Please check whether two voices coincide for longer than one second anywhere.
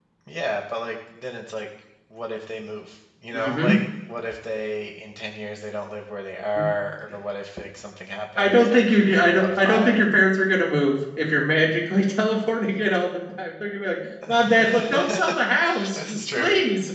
Yes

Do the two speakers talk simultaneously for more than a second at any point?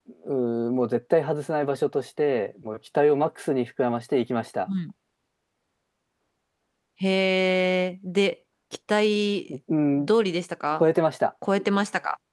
No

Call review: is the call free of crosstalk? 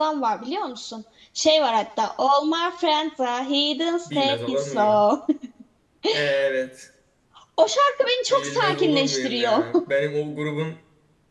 No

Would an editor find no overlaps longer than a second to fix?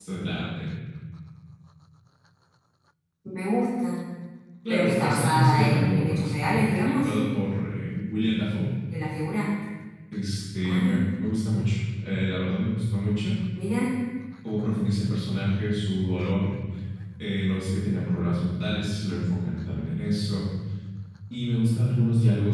No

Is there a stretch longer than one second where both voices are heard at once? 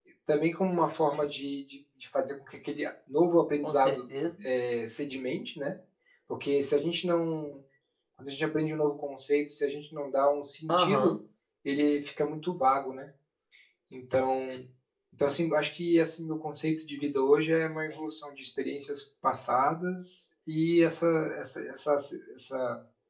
No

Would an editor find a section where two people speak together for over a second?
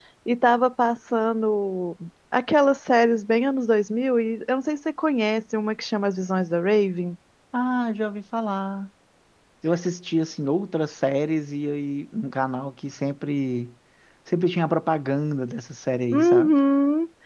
No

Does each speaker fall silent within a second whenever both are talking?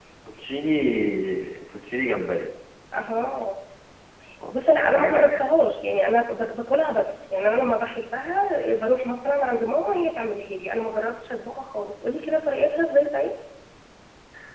Yes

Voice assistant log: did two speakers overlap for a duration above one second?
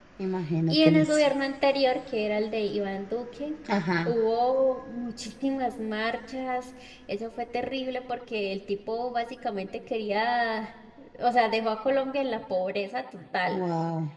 No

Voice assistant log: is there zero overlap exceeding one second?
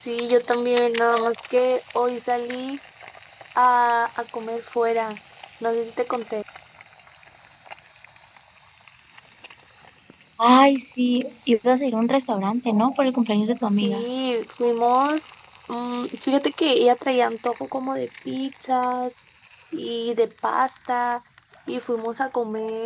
Yes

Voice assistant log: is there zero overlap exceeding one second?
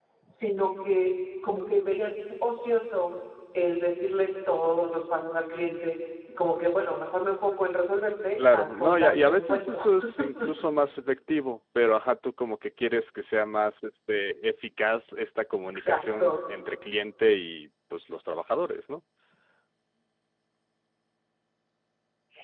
No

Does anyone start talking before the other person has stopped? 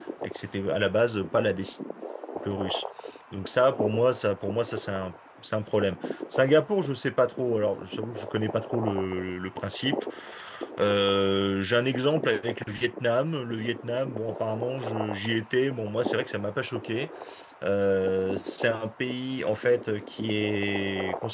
No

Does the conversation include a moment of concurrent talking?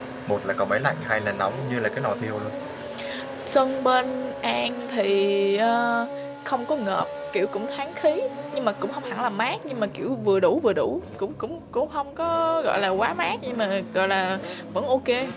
No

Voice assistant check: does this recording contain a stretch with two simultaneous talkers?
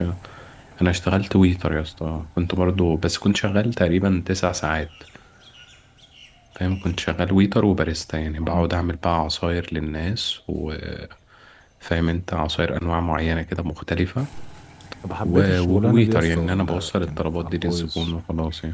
Yes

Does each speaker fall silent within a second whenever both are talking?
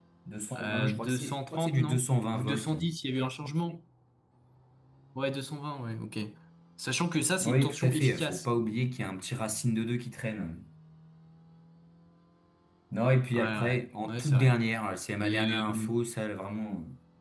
No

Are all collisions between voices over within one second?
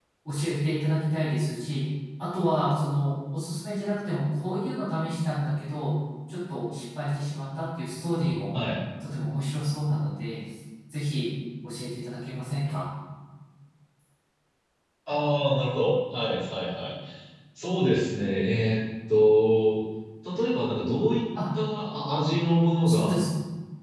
Yes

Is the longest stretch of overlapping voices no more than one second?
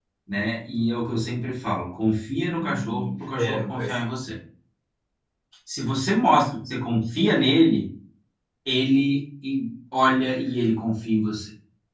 No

